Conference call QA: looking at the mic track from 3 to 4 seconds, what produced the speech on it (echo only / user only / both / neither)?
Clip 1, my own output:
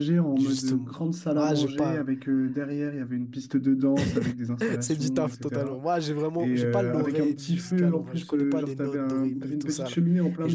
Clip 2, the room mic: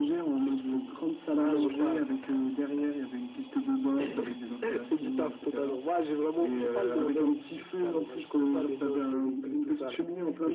echo only